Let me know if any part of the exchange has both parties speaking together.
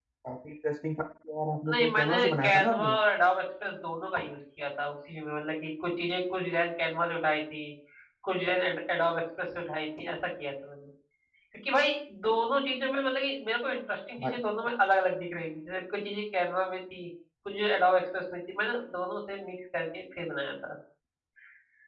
Yes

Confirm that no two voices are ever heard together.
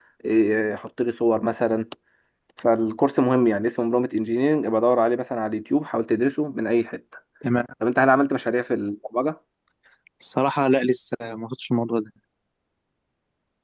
Yes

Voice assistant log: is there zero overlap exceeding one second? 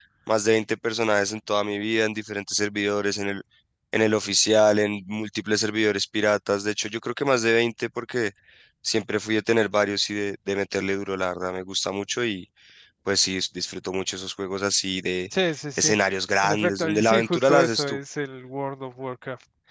No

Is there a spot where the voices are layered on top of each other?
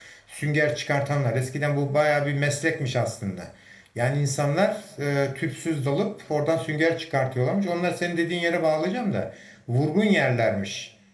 No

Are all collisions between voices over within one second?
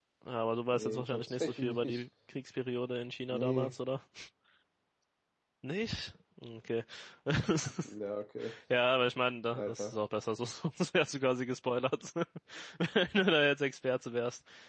No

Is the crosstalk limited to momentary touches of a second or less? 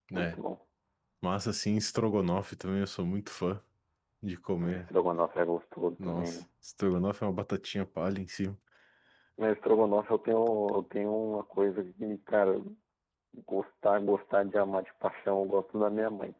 Yes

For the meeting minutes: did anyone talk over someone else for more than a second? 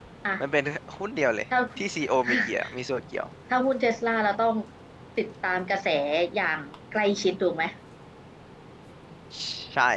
No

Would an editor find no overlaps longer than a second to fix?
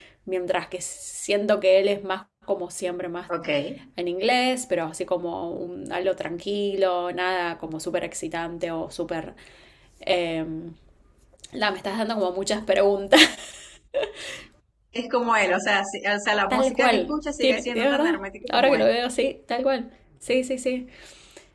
No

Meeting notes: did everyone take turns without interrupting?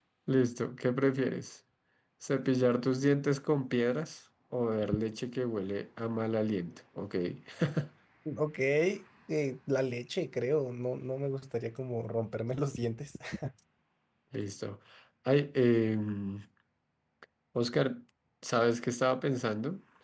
Yes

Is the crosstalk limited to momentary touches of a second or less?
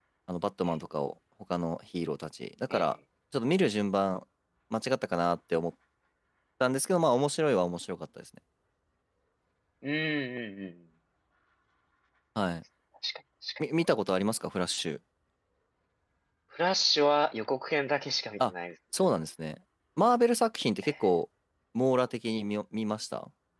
Yes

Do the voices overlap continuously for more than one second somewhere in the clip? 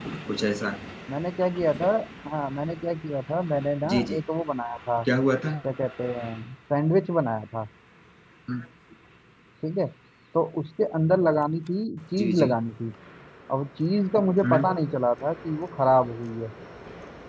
No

